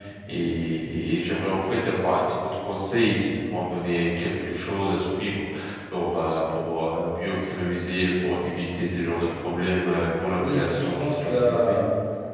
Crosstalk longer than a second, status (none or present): present